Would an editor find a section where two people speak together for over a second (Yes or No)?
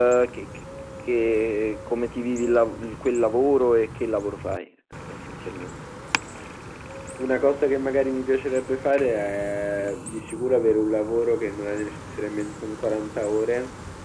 No